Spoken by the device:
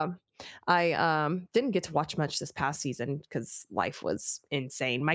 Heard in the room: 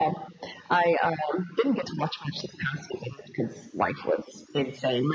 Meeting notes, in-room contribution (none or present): none